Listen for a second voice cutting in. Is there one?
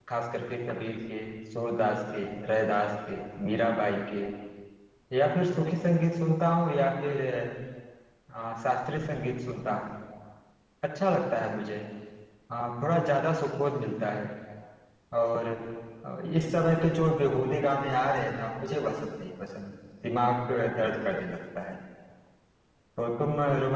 No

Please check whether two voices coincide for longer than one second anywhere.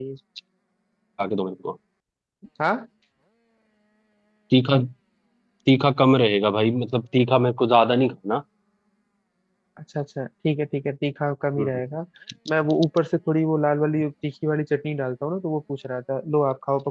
No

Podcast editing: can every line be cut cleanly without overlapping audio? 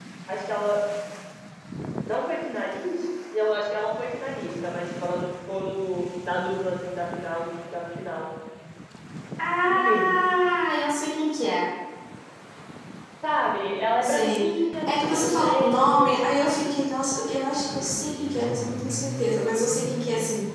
No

